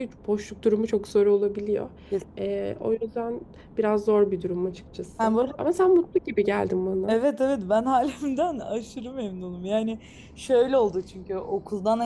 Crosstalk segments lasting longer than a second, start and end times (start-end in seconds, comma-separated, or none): none